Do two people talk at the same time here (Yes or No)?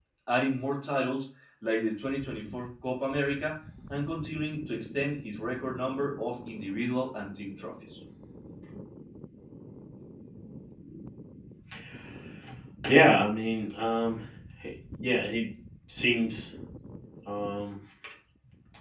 No